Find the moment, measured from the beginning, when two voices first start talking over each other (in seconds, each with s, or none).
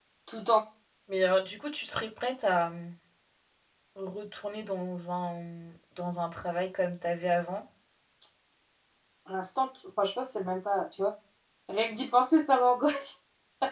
none